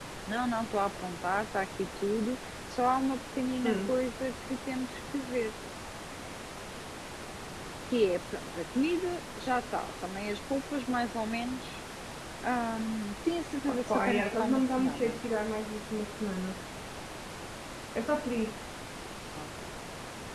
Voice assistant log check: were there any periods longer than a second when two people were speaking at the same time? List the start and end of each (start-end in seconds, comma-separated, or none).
13.7-15.2